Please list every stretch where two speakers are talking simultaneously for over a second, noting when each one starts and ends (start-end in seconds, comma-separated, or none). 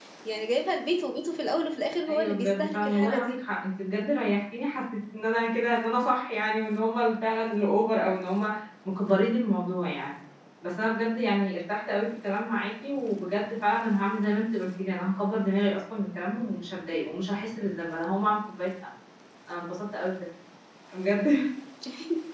2.1-3.4